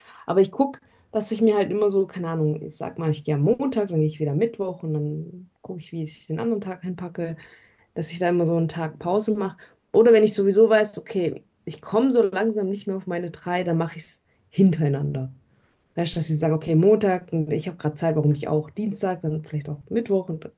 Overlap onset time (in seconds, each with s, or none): none